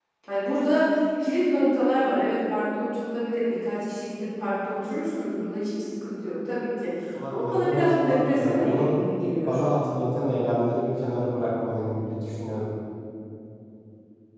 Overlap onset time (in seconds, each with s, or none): 7.3 s